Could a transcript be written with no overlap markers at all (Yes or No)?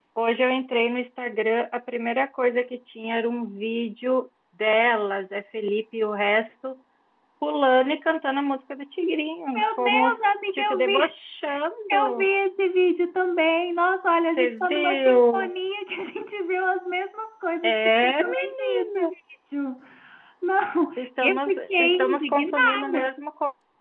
No